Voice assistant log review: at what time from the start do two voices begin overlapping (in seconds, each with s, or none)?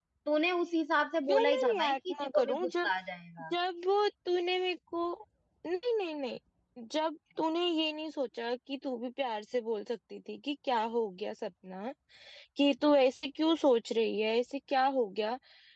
1.3 s